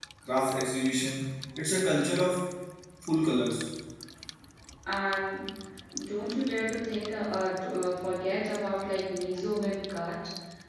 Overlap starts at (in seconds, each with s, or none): none